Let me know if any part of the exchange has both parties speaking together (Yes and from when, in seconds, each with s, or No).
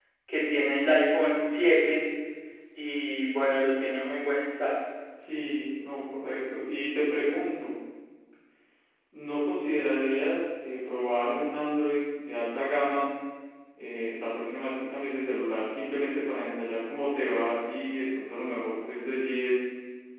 No